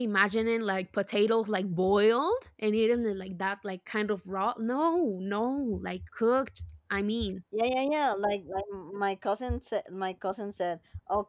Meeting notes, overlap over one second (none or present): none